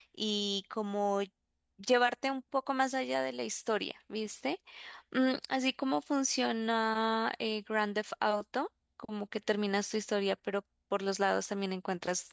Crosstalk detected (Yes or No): No